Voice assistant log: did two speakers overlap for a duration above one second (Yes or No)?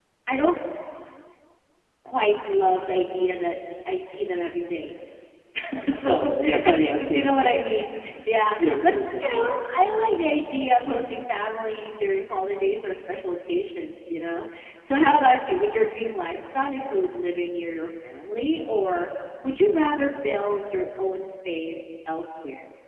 Yes